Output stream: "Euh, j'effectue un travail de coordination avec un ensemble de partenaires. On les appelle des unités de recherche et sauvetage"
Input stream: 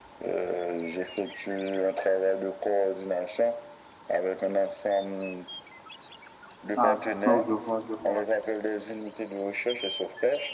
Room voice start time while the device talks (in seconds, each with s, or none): 6.8 s